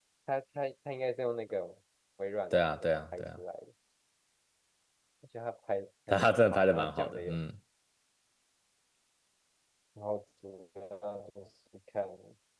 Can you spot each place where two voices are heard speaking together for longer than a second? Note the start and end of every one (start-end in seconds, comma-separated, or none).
6.1-7.4